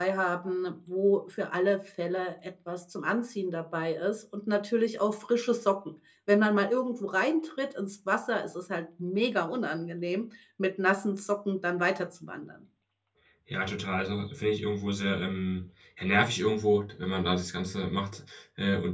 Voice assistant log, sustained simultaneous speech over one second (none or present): none